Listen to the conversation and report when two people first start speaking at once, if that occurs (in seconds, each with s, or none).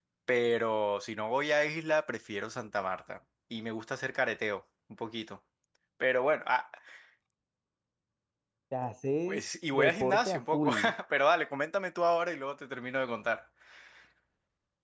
9.3 s